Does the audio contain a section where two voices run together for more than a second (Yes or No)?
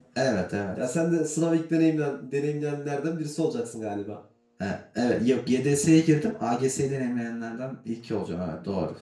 No